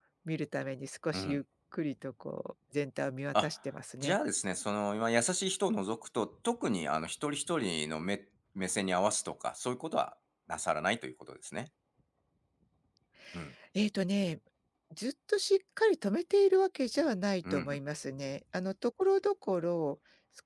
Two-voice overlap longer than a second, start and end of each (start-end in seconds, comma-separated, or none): none